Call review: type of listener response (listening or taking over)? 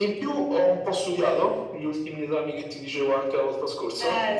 taking over